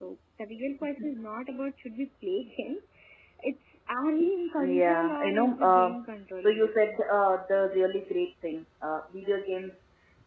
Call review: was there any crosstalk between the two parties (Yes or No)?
Yes